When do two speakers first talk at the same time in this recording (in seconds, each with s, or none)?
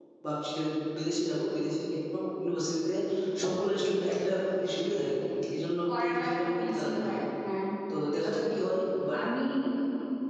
5.9 s